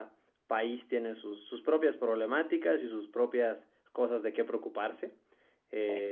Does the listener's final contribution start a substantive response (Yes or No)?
No